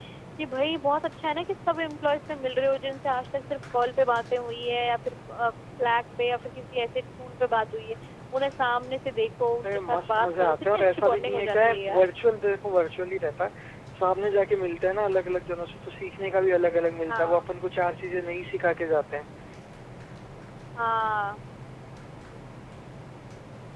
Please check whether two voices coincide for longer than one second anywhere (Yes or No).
Yes